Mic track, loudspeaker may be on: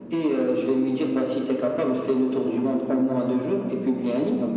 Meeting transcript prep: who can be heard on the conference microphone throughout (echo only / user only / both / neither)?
echo only